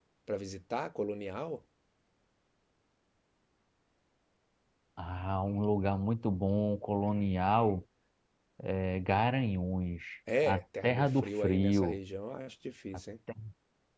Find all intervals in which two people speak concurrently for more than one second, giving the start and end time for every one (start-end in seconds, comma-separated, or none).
10.4-12.0